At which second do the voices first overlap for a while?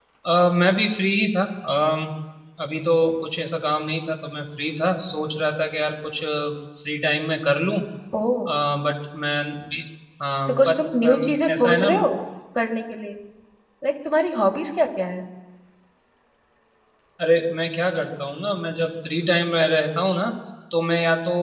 10.5 s

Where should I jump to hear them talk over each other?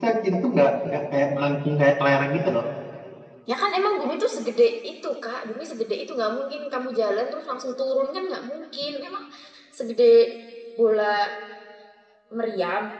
none

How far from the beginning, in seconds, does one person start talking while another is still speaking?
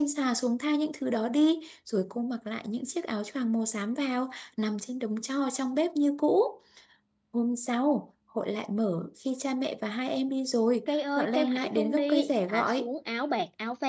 10.9 s

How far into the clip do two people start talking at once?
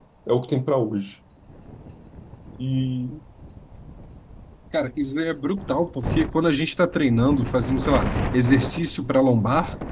none

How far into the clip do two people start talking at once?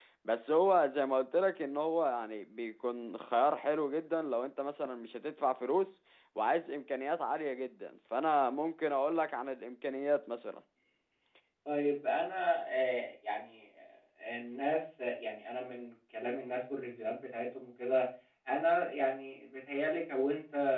none

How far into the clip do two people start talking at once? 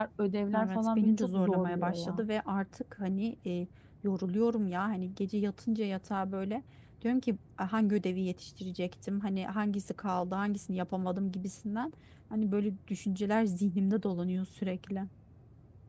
0.6 s

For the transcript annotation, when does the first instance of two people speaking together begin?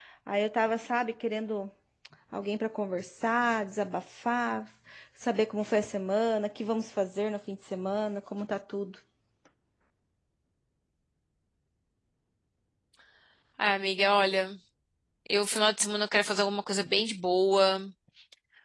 none

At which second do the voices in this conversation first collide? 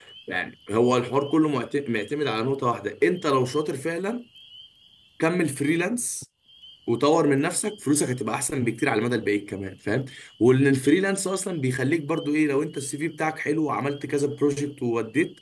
none

